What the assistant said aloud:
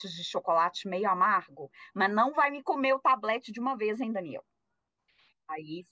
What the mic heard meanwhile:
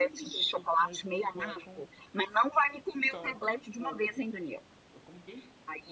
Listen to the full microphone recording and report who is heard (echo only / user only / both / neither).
both